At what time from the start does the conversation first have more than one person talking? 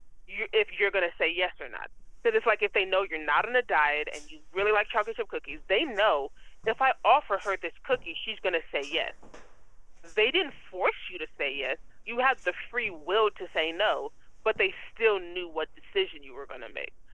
none

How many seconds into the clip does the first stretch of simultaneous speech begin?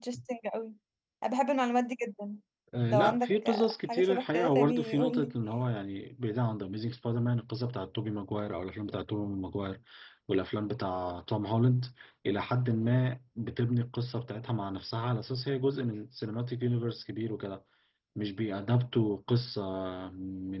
3 s

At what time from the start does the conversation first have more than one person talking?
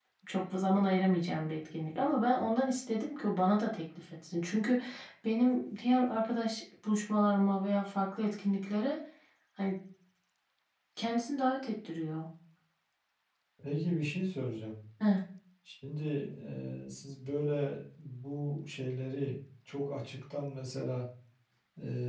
none

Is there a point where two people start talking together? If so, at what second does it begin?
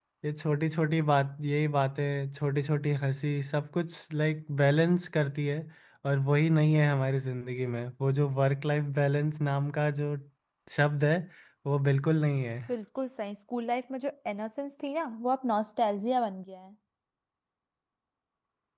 none

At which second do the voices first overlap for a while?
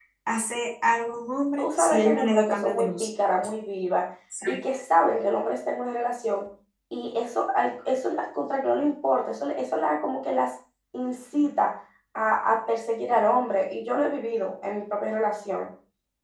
2 s

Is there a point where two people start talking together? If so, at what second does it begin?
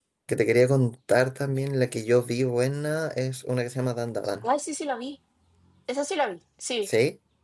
none

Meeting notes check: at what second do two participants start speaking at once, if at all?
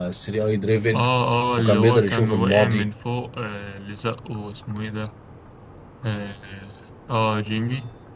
2 s

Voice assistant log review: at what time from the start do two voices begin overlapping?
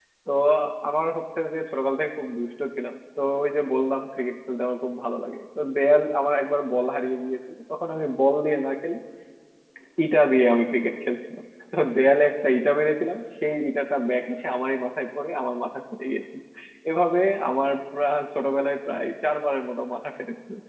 none

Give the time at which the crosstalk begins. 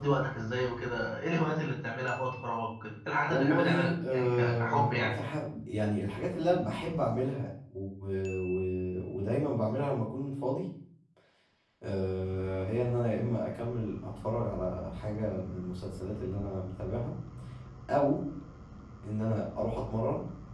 3 s

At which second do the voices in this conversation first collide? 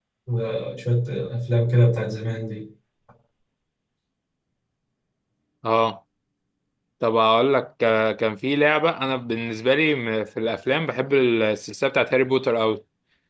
none

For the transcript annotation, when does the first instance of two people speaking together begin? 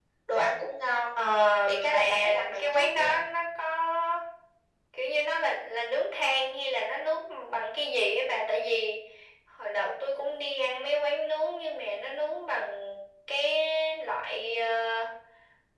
2 s

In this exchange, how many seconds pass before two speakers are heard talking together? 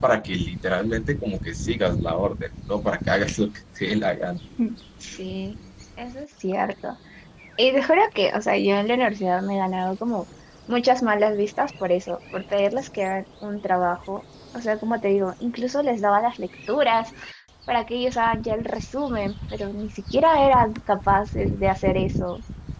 none

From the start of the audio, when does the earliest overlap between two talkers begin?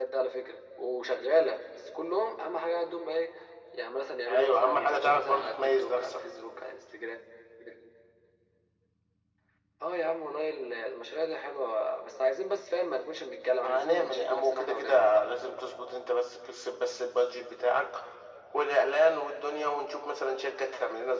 4 s

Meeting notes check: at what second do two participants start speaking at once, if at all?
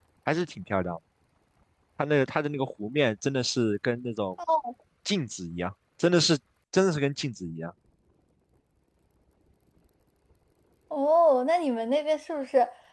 none

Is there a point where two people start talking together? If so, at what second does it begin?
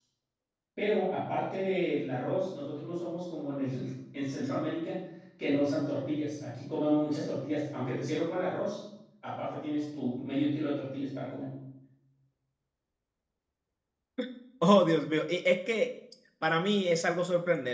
none

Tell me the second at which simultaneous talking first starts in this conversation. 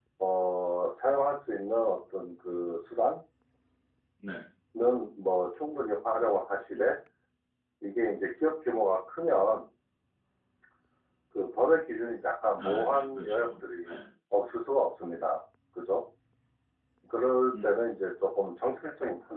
13 s

